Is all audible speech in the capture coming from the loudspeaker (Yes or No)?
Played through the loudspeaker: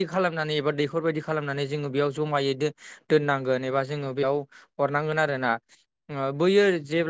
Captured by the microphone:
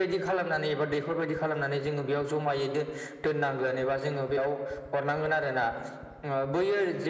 Yes